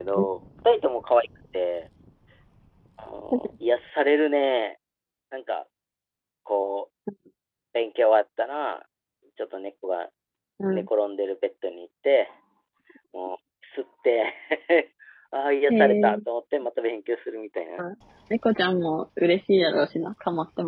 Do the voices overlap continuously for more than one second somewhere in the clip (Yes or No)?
No